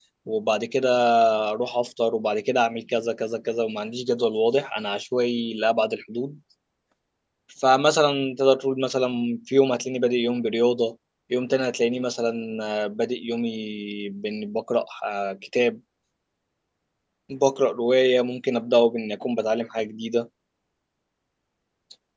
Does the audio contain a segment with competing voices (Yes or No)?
No